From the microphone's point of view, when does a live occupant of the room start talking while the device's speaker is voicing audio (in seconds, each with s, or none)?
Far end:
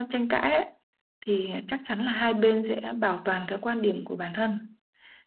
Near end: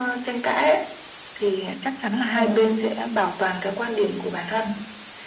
2.3 s